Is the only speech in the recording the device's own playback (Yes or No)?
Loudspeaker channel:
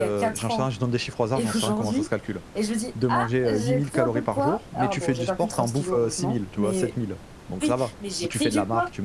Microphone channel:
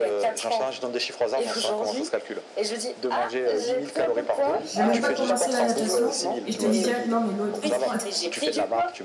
No